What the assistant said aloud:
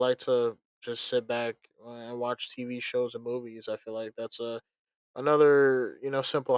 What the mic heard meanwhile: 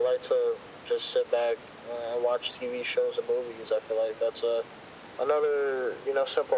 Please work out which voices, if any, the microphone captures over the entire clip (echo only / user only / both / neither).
echo only